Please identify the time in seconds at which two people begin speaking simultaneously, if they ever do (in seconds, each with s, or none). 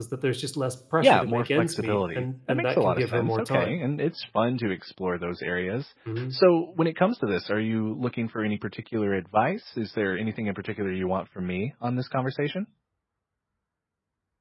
1.0 s